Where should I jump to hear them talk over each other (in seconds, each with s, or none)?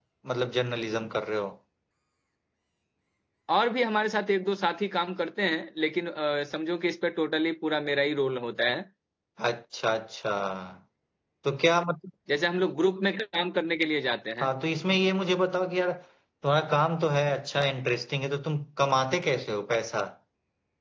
none